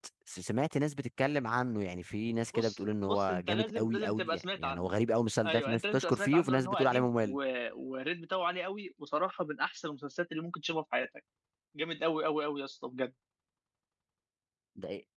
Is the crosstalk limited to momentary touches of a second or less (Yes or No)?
No